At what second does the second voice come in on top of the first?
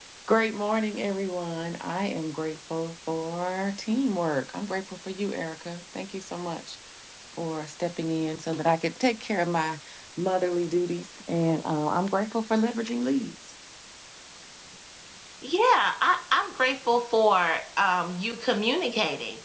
none

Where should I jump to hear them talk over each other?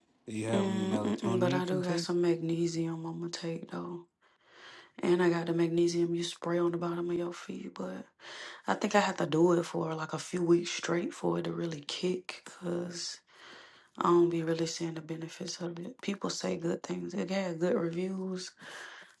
0.5 s

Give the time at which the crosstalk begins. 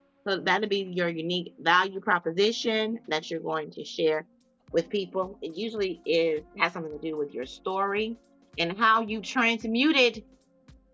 none

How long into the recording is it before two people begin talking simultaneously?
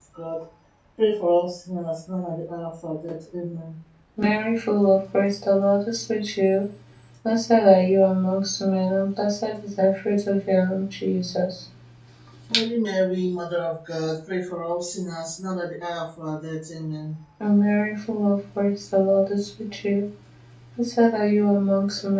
none

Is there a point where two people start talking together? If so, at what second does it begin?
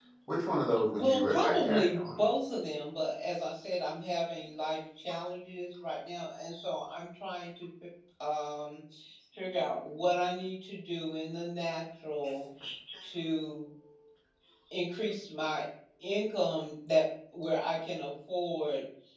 0.9 s

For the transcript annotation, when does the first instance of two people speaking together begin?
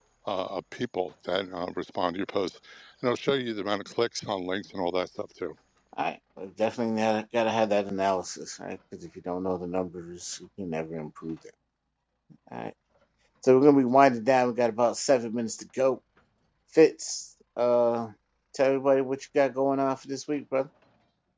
none

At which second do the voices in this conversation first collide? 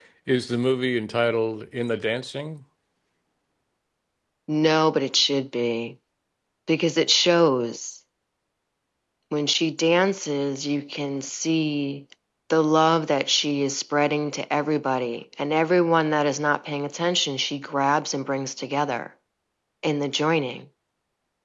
none

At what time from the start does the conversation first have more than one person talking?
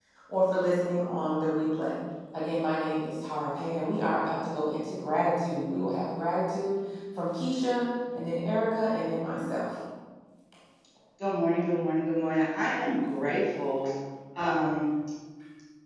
none

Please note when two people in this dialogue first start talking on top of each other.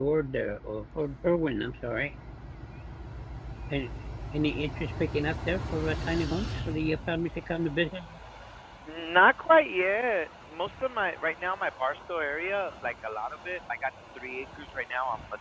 none

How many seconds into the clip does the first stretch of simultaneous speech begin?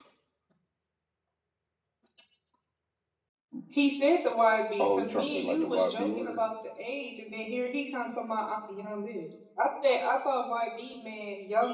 4.8 s

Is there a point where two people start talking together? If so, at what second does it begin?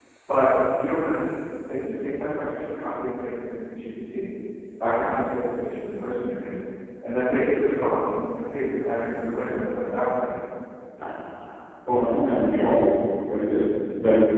none

